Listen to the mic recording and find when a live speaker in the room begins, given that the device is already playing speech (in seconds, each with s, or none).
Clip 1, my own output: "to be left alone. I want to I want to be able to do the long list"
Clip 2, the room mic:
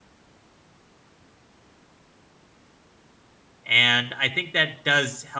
3.6 s